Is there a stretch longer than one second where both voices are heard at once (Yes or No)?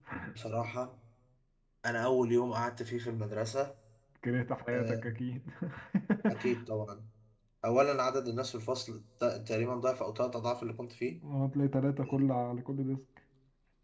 No